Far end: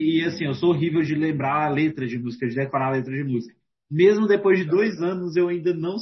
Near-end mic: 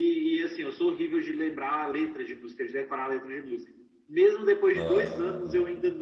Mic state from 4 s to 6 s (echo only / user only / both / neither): both